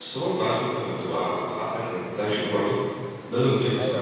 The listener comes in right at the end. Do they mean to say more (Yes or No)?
Yes